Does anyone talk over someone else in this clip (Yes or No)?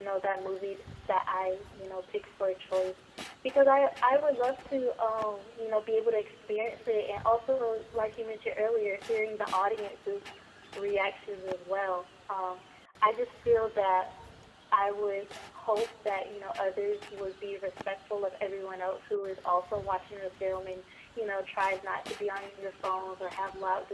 No